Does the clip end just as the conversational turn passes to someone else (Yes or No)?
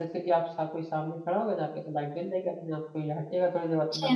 Yes